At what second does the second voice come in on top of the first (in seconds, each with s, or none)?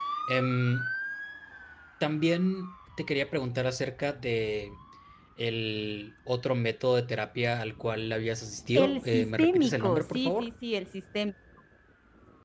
8.8 s